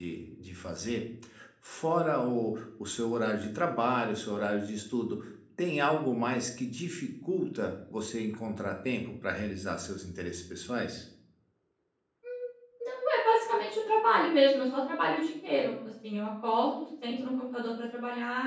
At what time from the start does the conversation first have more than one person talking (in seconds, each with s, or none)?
none